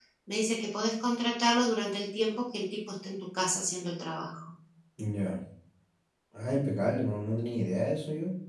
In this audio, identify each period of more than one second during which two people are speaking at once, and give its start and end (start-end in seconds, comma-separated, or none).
none